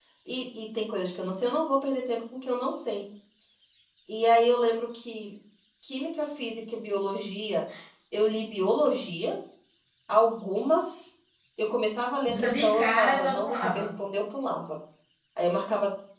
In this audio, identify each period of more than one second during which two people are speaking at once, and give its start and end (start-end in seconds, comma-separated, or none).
12.3-13.9